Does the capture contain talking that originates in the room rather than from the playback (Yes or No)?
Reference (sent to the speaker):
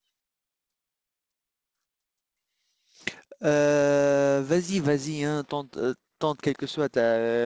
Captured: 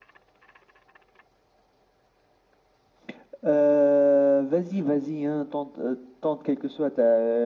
No